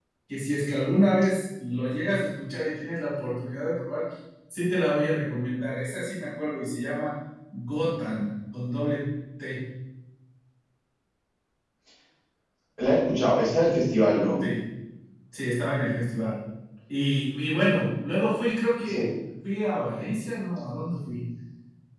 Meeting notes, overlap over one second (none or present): none